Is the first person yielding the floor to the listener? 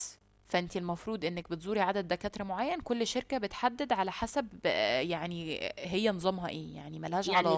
Yes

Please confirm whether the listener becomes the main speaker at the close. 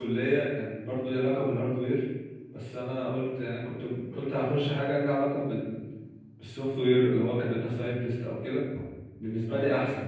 No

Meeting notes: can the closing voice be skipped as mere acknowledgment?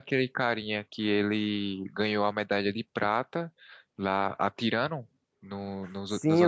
No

